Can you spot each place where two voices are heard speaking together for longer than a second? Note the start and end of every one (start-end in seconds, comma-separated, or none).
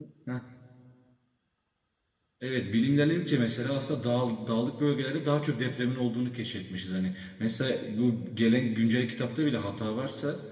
none